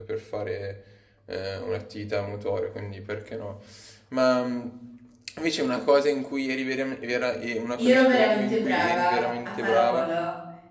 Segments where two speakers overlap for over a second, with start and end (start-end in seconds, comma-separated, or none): 7.8-10.0